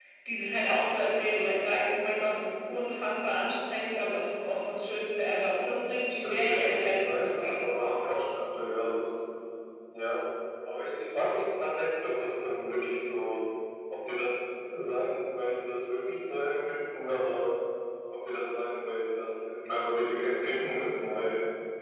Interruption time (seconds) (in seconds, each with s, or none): 6.2 s